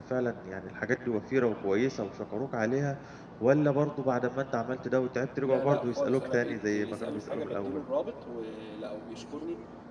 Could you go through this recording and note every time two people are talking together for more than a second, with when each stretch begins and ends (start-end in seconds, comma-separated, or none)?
5.4-7.8